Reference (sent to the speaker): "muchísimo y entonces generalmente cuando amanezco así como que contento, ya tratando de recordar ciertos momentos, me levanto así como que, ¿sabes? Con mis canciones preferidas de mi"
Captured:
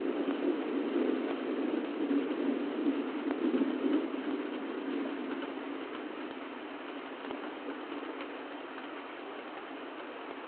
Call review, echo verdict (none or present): none